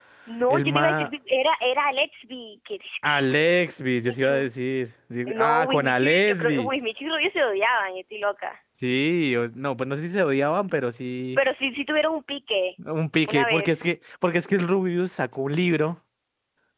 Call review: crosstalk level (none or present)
present